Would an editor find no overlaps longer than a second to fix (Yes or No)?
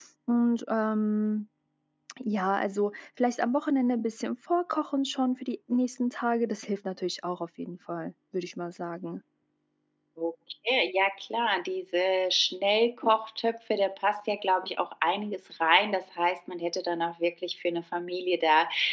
Yes